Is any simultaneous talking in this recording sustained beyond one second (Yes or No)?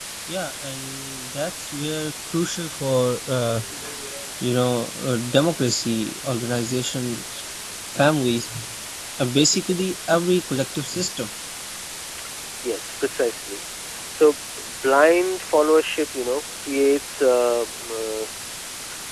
No